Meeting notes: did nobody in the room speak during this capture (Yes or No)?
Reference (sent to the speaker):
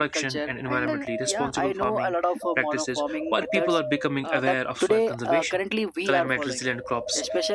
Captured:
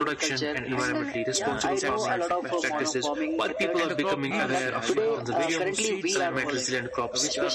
No